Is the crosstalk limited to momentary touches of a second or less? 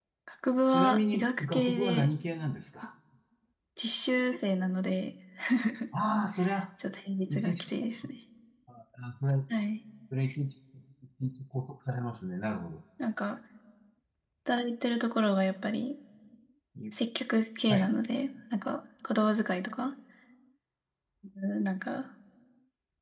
No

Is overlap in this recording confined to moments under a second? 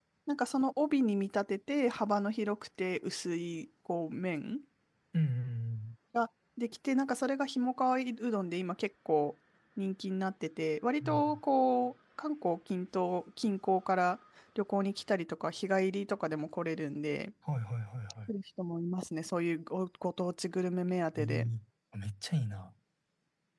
Yes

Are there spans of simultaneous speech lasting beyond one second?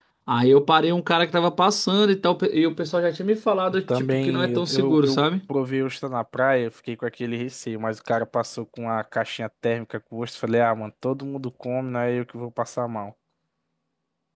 Yes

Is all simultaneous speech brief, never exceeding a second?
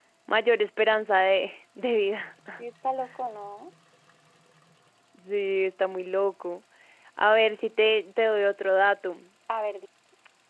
Yes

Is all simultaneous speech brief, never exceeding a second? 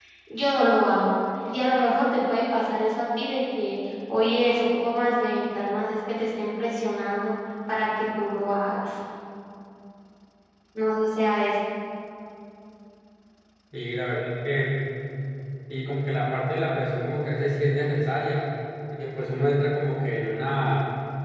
Yes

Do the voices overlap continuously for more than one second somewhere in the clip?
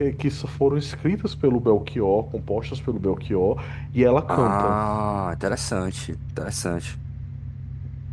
No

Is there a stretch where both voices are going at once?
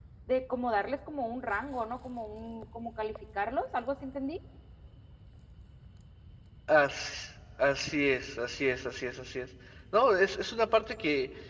No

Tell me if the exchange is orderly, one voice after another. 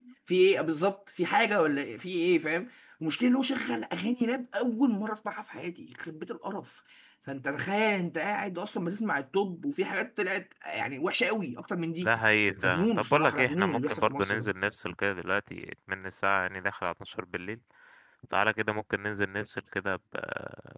No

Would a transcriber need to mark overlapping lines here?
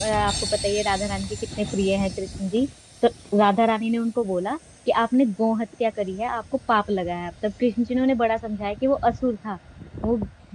No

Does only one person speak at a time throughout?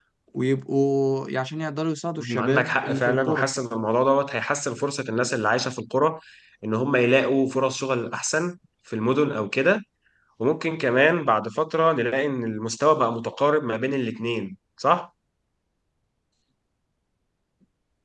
No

